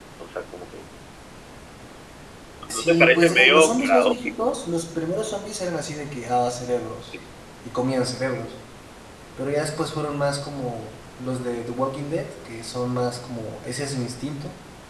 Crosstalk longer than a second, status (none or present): present